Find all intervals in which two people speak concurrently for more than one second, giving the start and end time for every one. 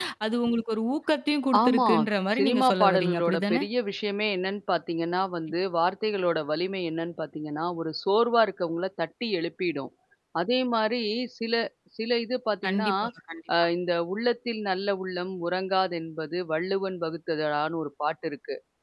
2.4-3.6

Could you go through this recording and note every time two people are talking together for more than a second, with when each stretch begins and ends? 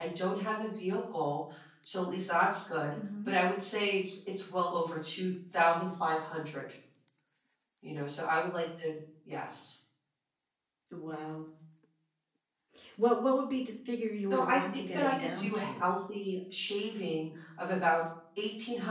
14.3-15.9

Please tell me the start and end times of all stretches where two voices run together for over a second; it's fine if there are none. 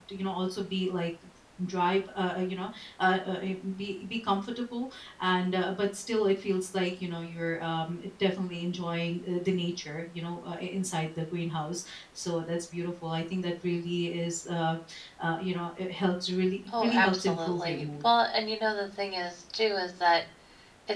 16.7-18.0

